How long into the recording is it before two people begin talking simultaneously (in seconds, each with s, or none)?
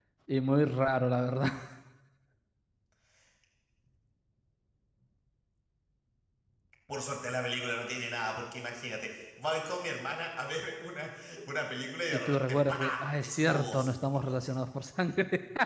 12.1 s